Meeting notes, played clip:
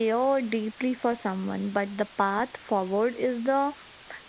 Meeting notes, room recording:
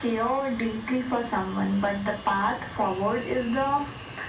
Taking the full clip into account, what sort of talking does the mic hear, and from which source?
echo only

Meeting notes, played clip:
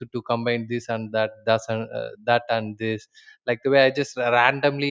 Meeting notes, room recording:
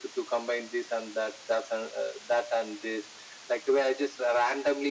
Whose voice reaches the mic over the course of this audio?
echo only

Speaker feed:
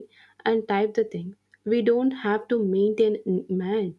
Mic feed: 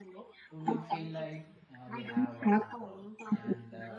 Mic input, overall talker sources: both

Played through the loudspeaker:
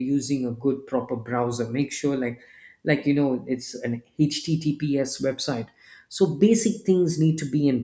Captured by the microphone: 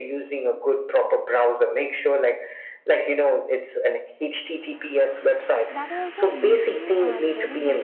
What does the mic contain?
both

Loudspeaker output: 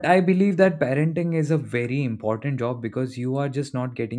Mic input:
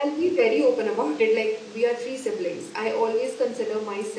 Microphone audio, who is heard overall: user only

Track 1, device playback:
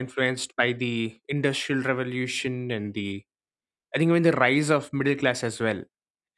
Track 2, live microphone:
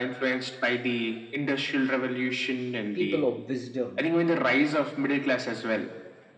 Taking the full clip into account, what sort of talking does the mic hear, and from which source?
both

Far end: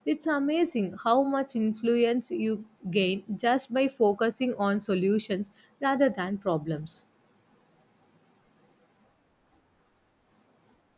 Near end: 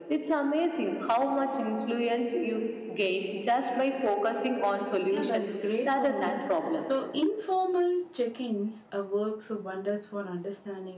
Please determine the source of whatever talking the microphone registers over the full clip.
both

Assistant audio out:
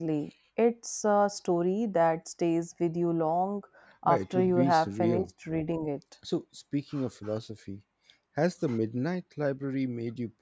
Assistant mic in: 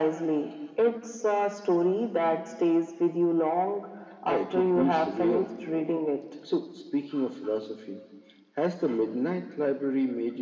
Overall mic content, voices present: echo only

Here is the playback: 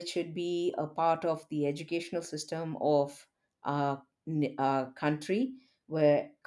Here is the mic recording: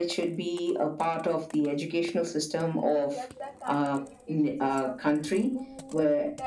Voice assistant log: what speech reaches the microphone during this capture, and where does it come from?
both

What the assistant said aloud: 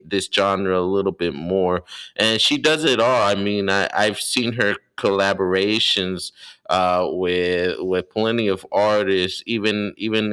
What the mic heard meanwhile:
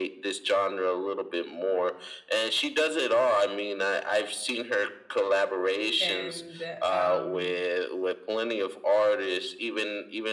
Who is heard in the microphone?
both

